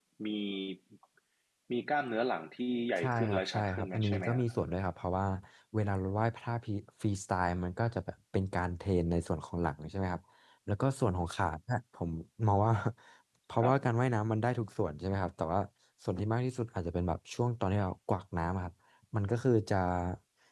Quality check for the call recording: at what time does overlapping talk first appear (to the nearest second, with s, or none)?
3 s